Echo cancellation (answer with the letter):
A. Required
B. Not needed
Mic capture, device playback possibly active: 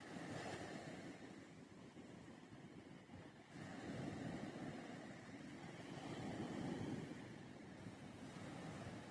B